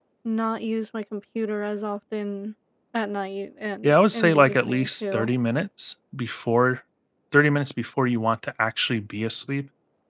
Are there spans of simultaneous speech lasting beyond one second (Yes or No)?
Yes